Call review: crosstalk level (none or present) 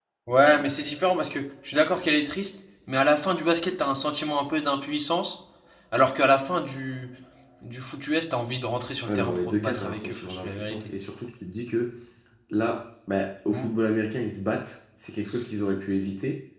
present